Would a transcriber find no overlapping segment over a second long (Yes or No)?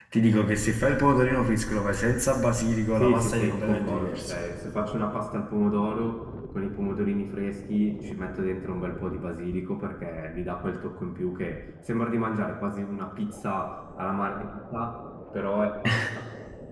No